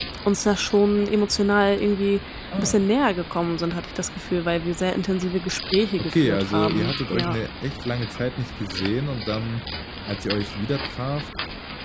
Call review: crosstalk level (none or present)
present